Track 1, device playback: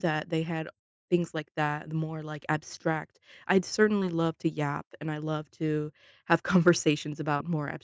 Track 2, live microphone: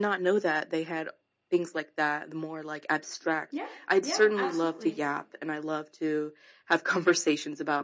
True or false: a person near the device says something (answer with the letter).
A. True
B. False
A